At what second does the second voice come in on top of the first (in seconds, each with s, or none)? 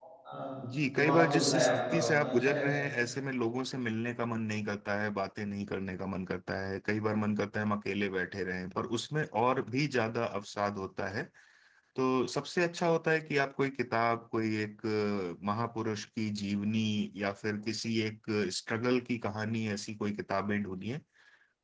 0.9 s